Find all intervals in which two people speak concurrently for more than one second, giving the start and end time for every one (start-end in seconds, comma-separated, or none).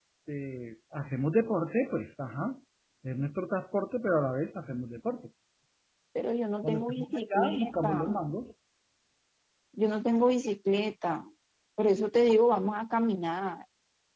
6.6-7.9